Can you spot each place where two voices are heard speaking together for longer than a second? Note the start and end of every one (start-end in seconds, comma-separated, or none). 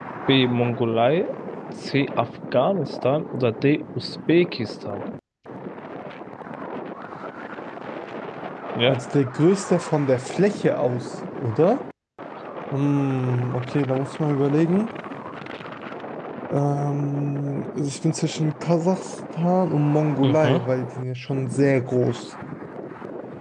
none